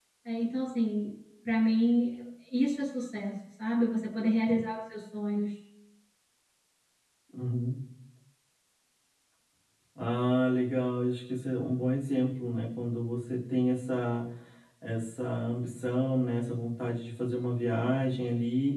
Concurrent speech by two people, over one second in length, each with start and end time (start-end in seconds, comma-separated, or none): none